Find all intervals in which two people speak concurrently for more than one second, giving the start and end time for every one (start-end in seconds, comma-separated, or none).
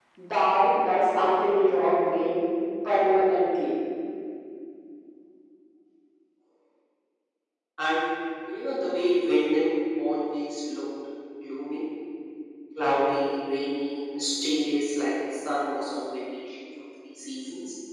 none